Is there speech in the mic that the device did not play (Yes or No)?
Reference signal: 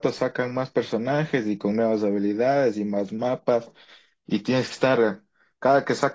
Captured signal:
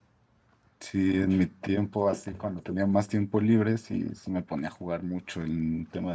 Yes